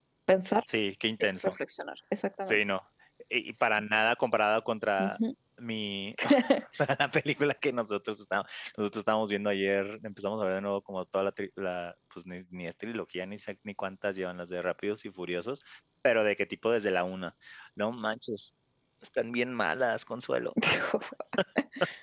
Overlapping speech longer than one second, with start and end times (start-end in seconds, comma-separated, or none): none